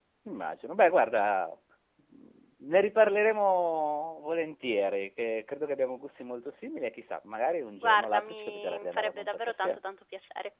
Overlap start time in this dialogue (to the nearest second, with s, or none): 8 s